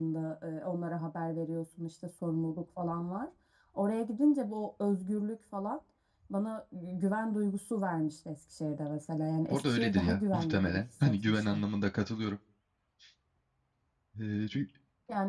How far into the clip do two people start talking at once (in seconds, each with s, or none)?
9.5 s